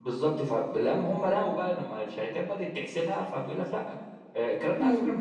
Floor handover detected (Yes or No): No